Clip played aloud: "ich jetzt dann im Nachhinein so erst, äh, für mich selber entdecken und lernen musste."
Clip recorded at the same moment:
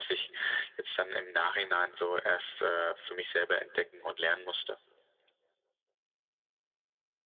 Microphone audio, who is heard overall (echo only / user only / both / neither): echo only